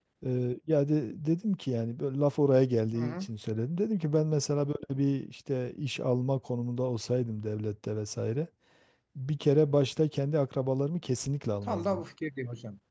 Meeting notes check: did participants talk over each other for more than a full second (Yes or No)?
No